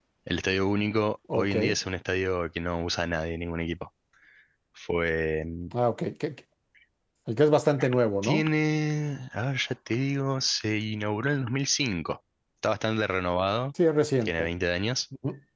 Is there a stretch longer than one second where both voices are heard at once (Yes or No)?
No